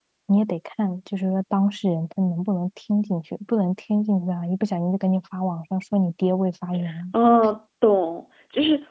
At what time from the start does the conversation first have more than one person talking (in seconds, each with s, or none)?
none